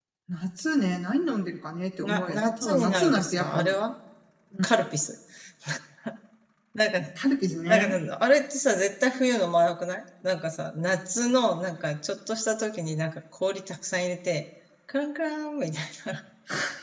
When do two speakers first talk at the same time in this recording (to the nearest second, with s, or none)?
2 s